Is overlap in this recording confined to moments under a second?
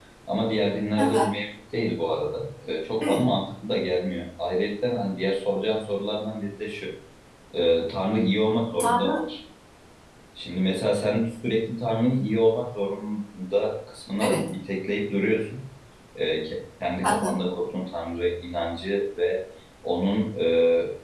Yes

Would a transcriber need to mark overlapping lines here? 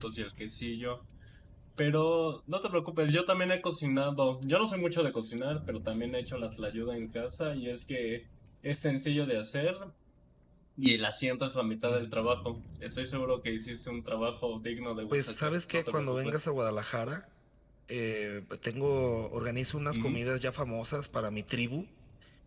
Yes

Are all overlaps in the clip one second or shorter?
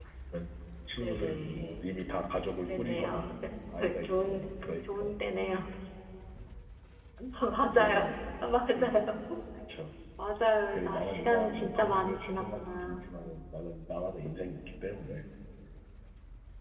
No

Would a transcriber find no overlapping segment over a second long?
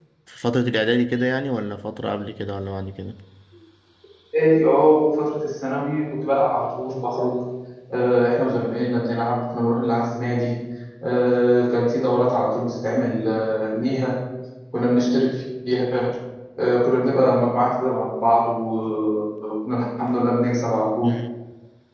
Yes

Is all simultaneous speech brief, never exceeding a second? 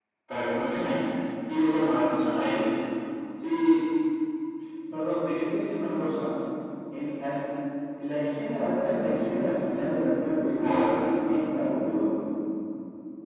Yes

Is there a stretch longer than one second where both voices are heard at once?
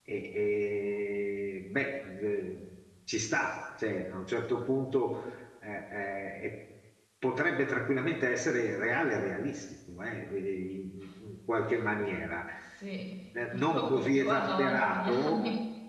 Yes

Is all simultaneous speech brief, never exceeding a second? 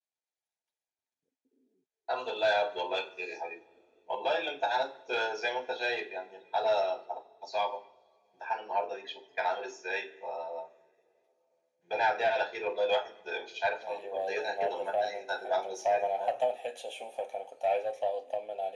No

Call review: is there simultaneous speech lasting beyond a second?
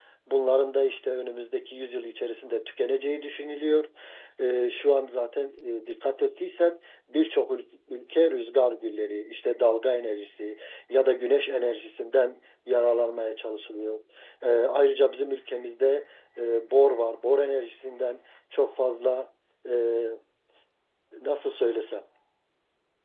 No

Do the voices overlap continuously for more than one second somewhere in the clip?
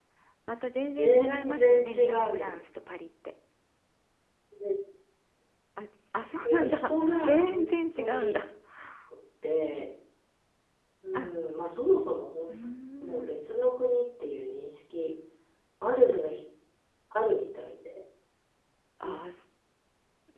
Yes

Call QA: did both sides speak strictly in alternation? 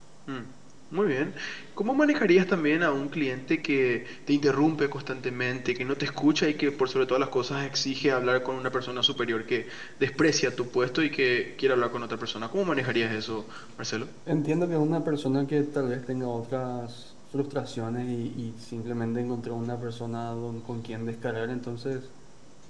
Yes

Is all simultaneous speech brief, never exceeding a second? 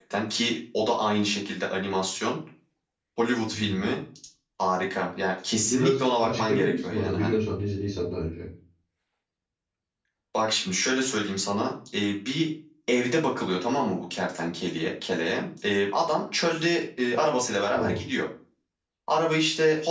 No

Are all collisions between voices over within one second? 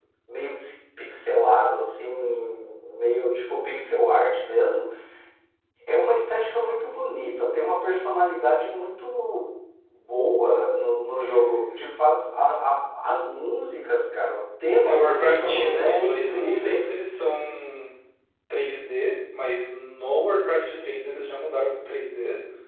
No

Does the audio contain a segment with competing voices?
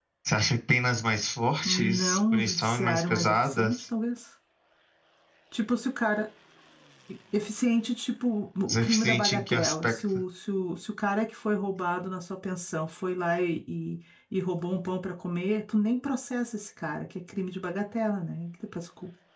Yes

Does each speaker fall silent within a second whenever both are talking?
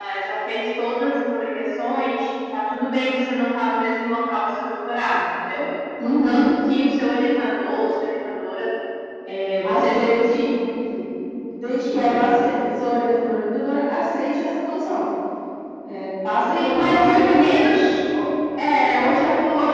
No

